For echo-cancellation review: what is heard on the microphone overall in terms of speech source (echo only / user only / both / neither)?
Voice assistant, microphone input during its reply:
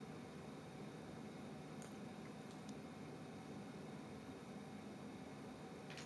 neither